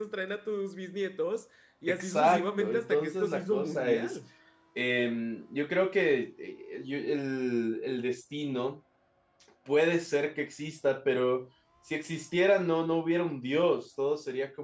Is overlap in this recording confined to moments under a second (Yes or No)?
No